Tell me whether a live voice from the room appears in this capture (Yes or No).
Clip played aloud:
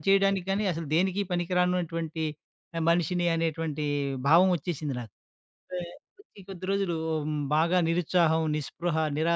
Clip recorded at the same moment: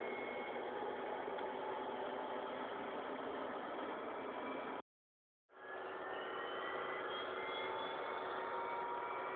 No